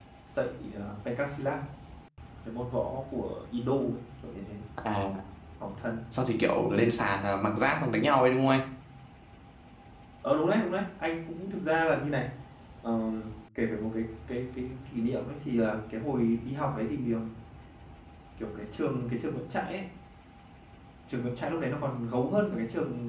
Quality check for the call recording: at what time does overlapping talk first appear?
none

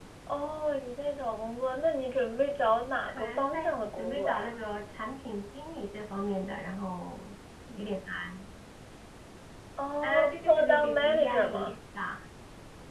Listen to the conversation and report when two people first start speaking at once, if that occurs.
3.0 s

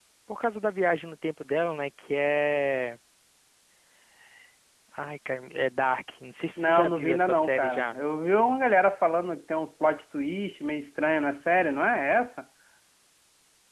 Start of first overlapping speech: 6.6 s

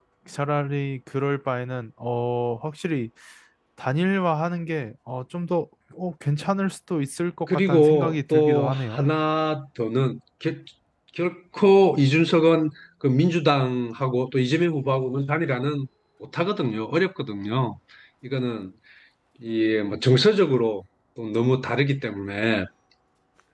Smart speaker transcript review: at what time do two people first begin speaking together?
7.5 s

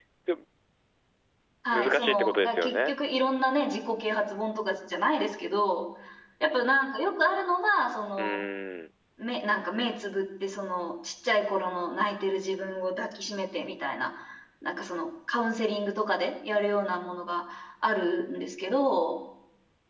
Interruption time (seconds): 1.7 s

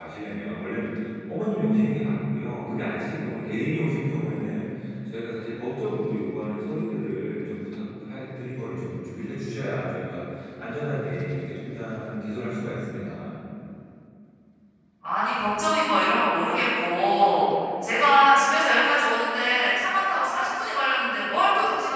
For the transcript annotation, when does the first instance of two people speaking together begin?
none

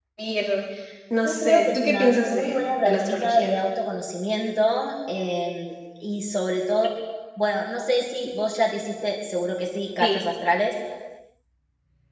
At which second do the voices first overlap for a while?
1.2 s

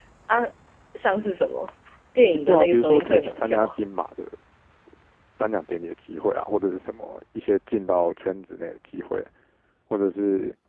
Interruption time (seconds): 2.3 s

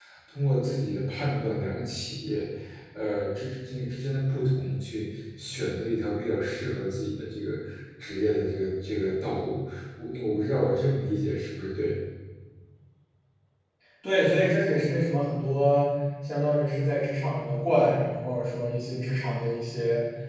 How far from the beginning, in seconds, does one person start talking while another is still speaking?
none

